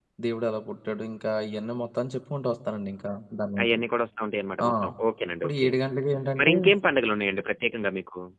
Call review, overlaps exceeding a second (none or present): none